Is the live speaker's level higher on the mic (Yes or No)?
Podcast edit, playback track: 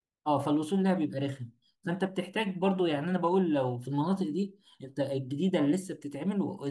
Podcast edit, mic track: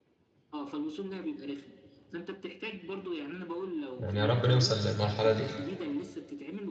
Yes